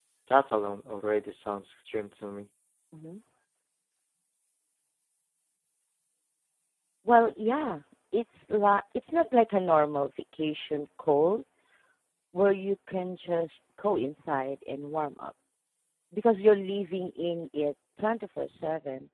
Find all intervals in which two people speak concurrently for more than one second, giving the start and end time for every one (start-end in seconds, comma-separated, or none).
none